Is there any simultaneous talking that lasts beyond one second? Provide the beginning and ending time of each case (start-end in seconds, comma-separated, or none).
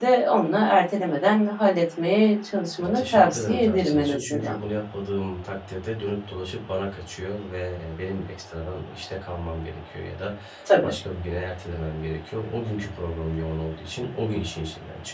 2.8-4.5